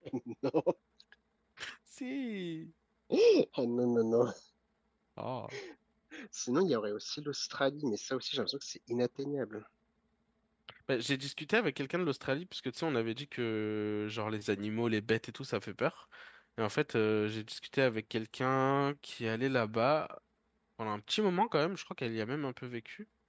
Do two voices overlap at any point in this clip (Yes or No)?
No